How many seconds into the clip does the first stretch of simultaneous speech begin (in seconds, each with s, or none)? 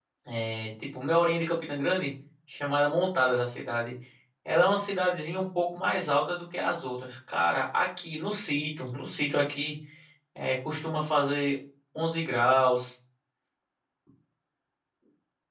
none